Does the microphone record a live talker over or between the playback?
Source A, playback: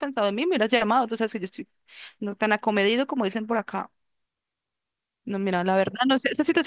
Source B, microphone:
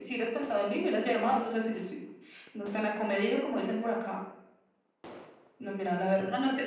No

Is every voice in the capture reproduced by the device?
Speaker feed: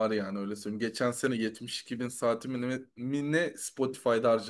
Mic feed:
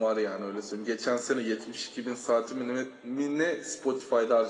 Yes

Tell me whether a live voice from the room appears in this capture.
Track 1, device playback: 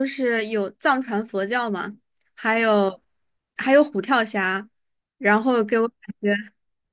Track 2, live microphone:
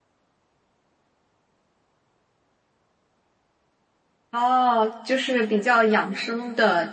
Yes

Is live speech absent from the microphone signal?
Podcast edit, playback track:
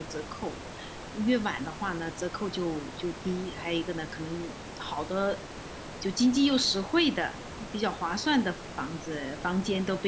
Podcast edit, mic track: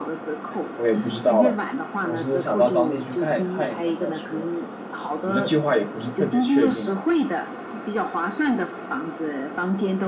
No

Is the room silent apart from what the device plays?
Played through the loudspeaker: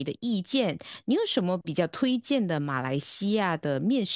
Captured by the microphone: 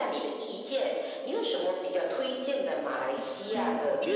No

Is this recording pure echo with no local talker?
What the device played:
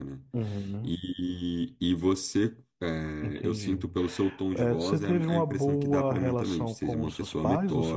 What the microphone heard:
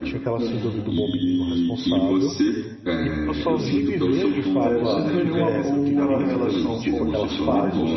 No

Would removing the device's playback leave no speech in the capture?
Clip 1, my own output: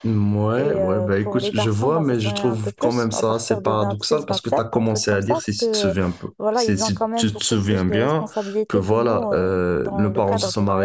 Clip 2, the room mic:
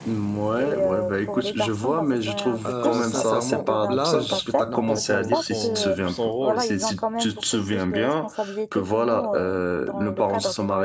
No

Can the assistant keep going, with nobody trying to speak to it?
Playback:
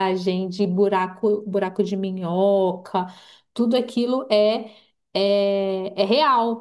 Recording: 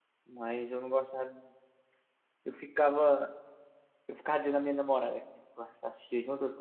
No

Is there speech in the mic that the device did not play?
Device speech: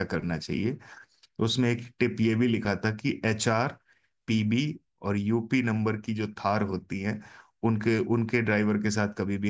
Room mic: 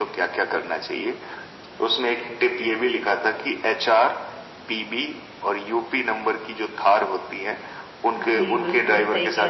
Yes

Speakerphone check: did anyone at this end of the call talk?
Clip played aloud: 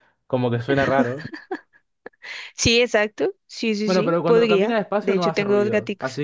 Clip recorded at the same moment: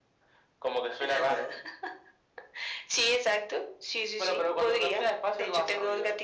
No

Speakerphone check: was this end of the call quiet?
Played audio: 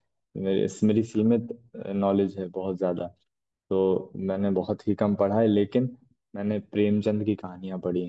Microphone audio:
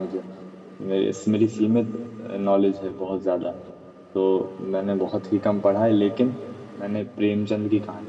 Yes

